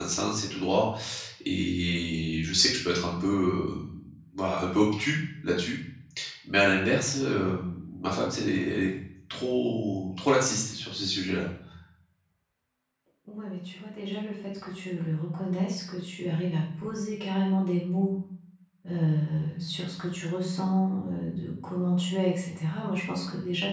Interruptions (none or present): none